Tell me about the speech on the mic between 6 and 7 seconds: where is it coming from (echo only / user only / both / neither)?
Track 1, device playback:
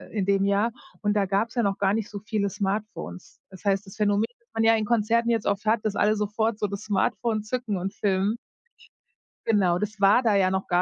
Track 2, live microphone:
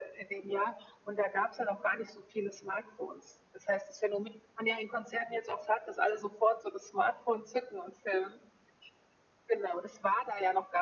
echo only